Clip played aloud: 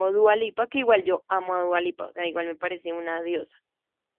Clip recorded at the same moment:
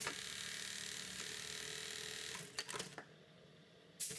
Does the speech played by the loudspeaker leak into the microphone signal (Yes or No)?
No